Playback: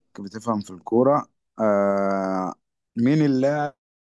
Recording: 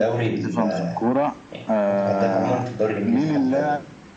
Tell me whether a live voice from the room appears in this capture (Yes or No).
Yes